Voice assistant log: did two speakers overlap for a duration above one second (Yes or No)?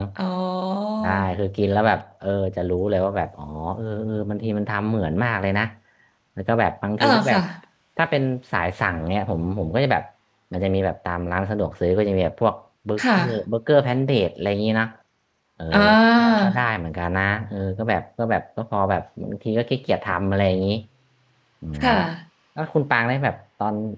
No